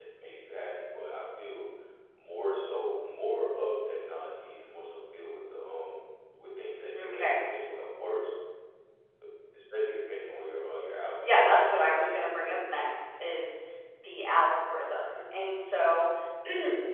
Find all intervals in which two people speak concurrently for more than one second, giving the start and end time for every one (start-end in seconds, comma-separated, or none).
11.2-12.6